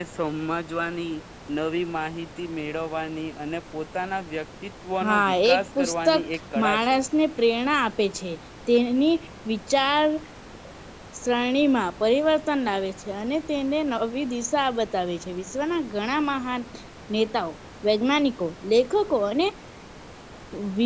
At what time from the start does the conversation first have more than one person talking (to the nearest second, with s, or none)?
5 s